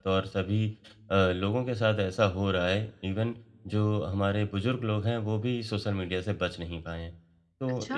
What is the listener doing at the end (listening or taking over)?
listening